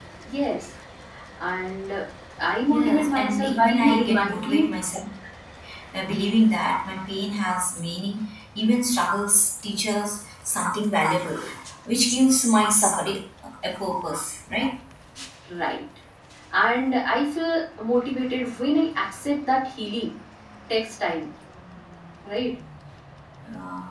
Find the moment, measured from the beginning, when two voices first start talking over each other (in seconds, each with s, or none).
2.7 s